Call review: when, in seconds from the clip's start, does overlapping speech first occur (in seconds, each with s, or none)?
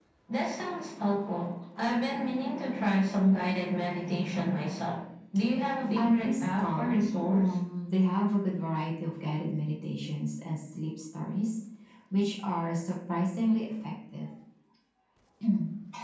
6.0 s